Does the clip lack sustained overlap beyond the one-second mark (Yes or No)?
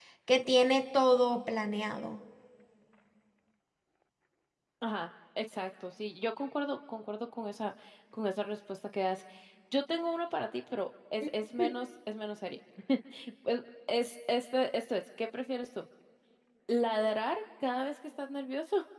Yes